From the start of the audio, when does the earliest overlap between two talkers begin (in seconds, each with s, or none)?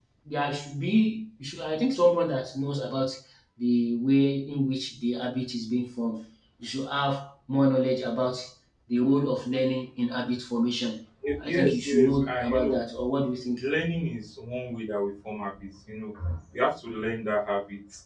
11.4 s